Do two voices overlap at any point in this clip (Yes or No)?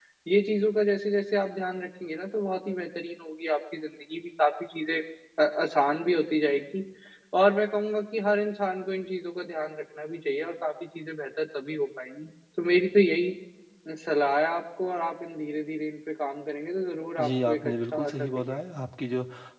Yes